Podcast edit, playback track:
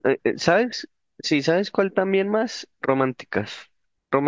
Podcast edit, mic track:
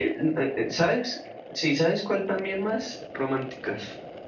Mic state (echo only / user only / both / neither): echo only